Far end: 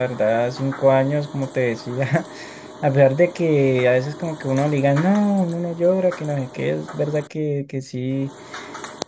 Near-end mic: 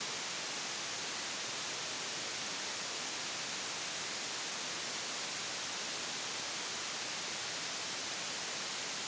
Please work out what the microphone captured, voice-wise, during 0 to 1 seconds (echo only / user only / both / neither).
neither